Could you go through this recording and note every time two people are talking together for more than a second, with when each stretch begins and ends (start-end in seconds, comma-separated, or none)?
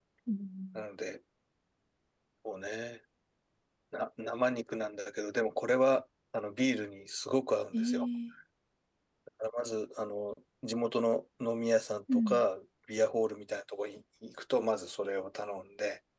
none